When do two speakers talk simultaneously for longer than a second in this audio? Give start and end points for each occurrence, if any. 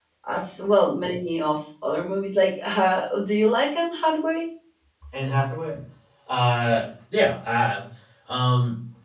none

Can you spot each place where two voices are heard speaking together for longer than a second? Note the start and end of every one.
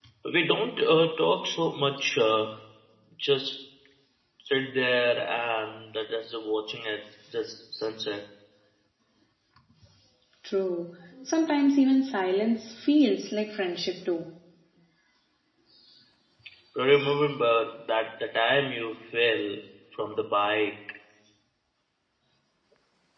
none

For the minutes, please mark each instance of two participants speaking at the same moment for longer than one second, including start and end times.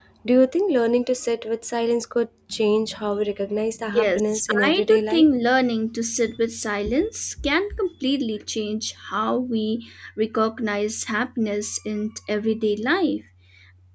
3.8-5.3

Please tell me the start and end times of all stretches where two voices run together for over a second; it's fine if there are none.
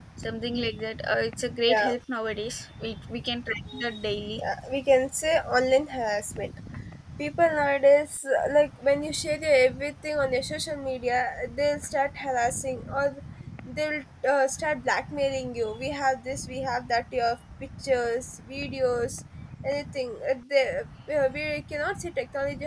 none

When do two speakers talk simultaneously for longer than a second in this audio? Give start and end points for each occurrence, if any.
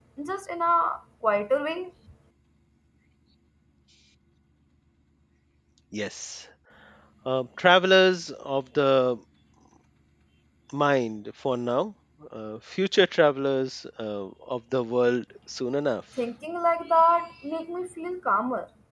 none

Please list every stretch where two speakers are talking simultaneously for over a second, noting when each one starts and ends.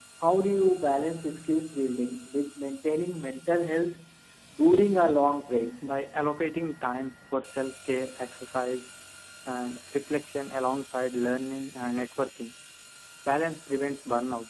none

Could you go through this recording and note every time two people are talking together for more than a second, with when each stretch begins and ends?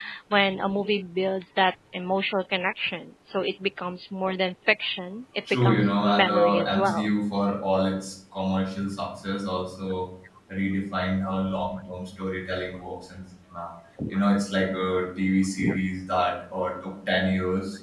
5.5-7.1

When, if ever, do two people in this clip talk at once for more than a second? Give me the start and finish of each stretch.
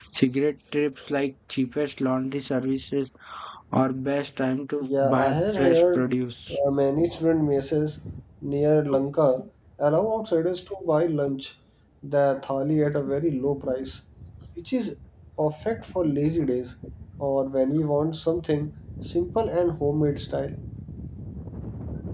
4.8-6.0

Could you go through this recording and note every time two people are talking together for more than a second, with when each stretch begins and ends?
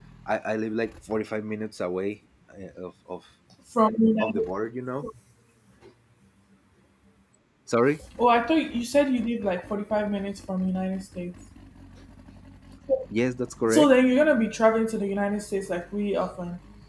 none

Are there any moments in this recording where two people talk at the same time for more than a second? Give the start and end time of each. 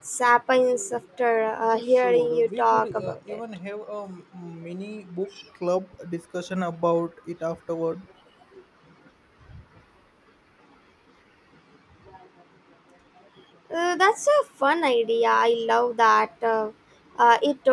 1.6-3.4

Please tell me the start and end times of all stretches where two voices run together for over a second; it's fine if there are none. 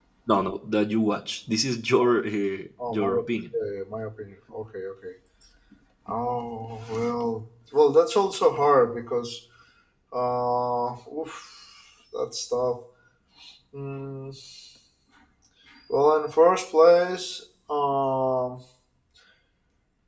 none

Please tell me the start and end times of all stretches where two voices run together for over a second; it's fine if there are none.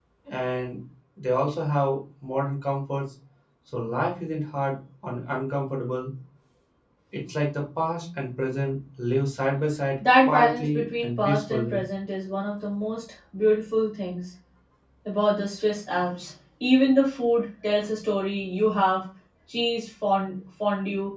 10.2-11.8

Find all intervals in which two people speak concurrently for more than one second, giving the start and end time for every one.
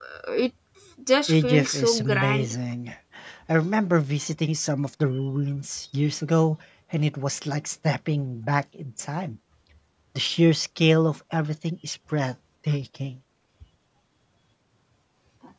1.3-2.5

